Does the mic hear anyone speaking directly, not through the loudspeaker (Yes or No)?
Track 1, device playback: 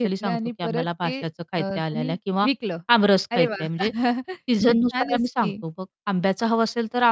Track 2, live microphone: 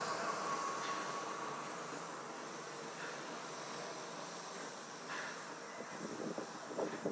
No